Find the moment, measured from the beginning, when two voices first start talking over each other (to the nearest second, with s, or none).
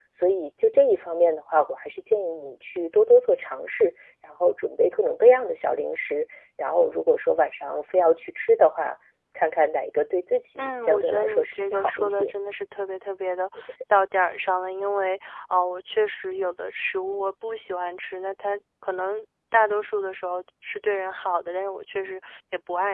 11 s